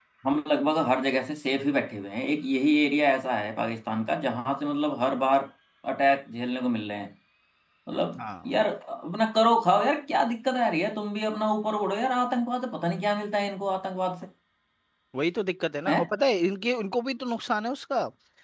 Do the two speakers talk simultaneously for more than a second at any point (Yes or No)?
No